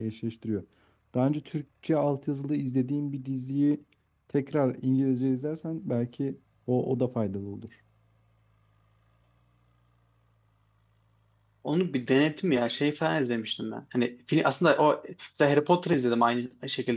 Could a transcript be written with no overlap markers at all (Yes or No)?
Yes